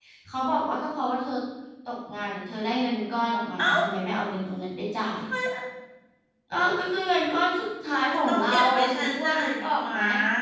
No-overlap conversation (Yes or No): No